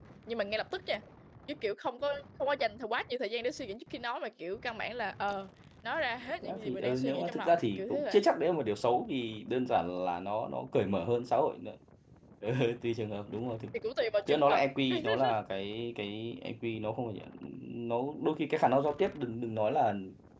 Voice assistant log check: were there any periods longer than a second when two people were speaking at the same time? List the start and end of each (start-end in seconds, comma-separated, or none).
6.4-8.2